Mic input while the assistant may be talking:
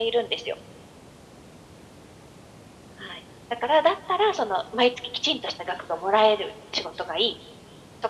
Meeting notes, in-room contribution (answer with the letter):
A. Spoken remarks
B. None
B